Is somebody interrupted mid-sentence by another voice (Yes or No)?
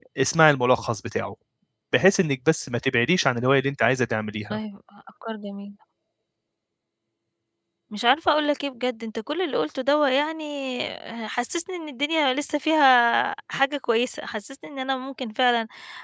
No